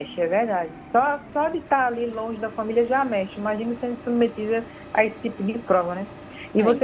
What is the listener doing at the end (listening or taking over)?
listening